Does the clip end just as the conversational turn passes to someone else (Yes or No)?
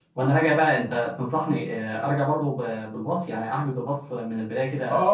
Yes